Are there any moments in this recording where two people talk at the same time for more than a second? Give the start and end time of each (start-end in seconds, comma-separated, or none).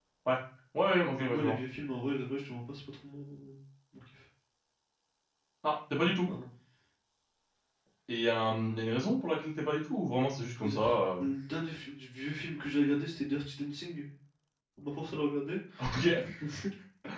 none